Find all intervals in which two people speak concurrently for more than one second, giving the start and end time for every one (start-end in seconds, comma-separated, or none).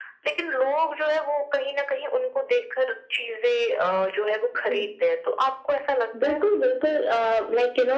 none